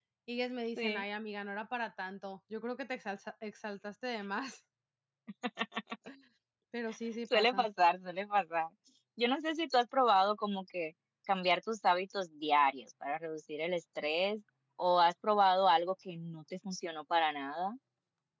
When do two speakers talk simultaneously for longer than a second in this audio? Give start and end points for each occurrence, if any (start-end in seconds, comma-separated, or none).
none